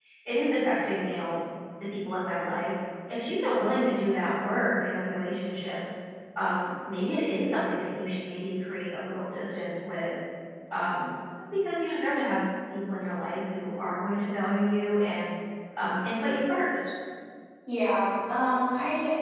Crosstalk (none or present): none